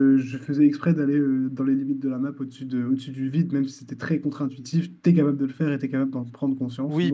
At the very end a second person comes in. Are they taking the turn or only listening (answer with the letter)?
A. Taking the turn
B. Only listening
A